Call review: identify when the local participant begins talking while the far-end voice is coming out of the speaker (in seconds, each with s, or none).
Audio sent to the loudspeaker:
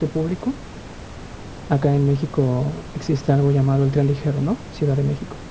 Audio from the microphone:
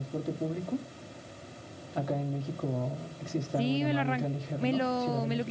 3.5 s